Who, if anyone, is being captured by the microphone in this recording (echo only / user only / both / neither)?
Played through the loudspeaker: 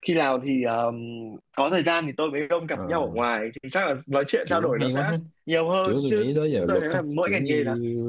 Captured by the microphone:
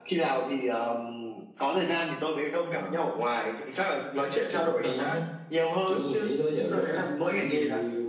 echo only